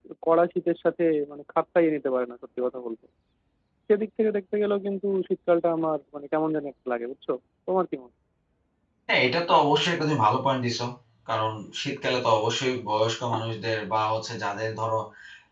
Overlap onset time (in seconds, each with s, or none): none